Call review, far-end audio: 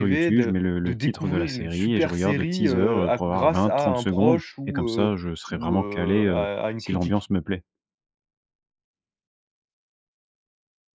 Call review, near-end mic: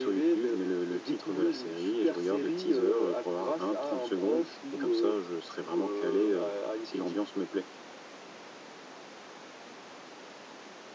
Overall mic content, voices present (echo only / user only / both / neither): echo only